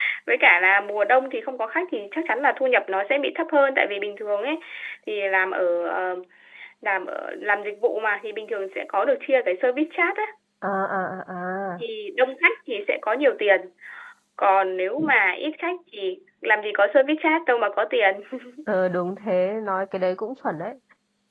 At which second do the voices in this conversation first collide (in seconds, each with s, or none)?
none